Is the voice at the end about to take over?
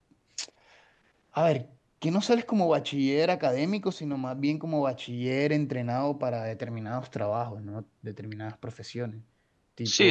Yes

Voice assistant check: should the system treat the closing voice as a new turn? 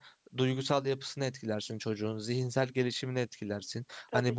No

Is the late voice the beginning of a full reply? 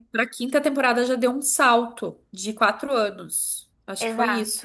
Yes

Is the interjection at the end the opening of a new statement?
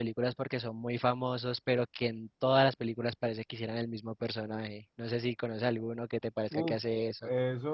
Yes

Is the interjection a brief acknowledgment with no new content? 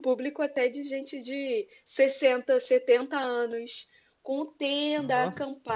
Yes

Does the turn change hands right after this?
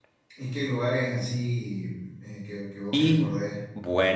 Yes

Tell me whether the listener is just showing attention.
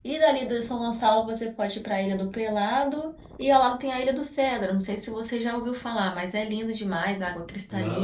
No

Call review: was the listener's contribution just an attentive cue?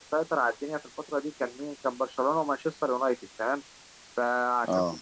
Yes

